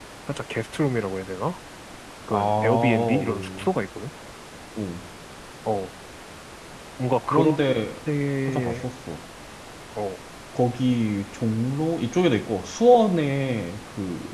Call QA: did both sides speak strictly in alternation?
No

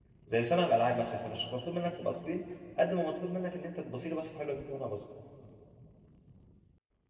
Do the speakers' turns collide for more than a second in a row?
No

